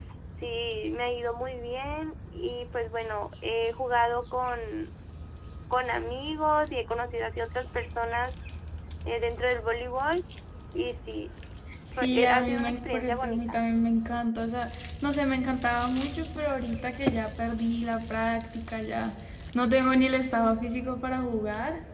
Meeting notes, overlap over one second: present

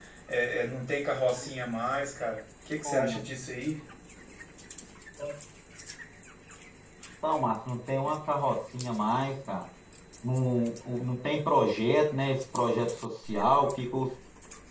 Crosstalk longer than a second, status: none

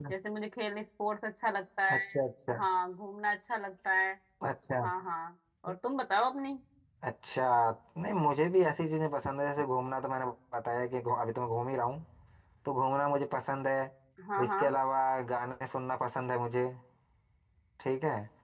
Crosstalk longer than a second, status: none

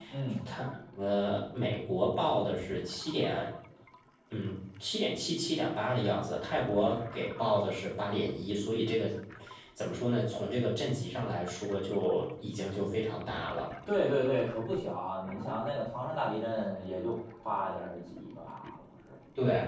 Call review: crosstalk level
none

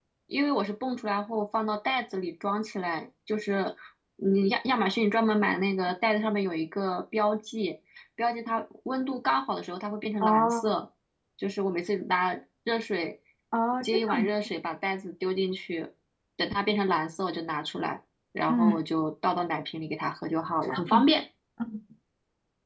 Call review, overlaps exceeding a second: none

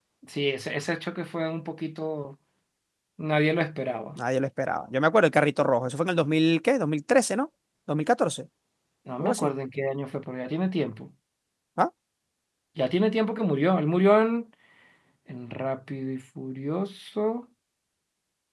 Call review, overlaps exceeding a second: none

